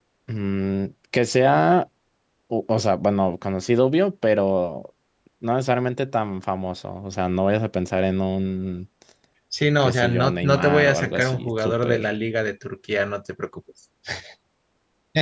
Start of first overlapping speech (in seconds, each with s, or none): 9.8 s